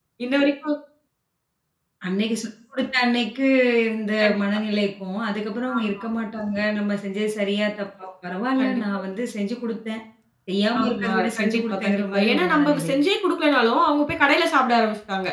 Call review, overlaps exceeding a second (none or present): present